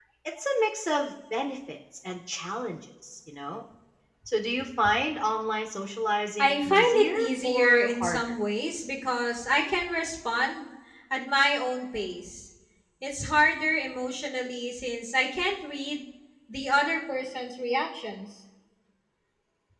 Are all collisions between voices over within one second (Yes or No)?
No